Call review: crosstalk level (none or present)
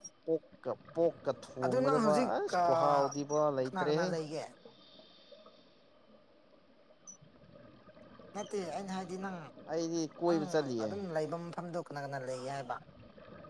present